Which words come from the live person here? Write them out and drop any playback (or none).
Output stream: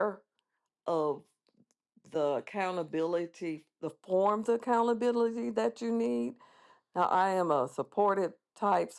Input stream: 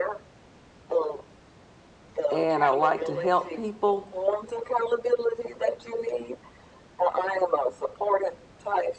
and I like to help people.